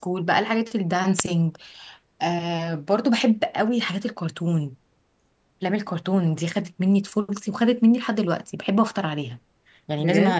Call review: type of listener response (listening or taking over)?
listening